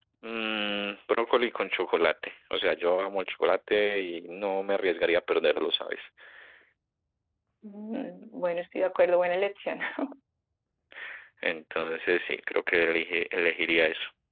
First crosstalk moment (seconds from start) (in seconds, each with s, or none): none